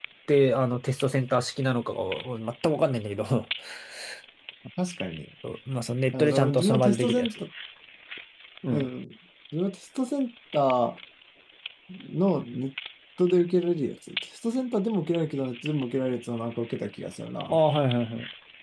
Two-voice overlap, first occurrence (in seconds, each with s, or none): 6.1 s